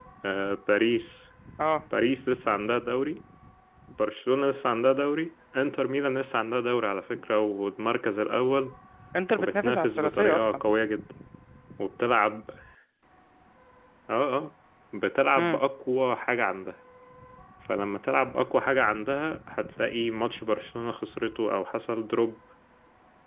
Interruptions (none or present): present